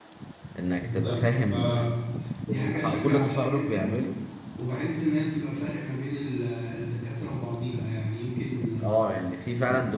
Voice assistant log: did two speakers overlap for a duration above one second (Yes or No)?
Yes